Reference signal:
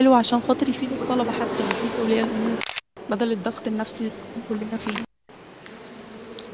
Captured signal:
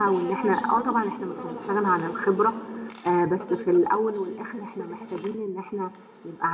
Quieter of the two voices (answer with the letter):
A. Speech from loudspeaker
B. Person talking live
A